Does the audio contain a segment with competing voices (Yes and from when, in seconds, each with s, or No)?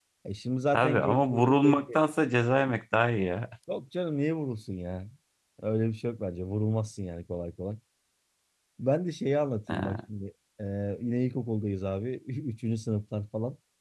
Yes, from 0.7 s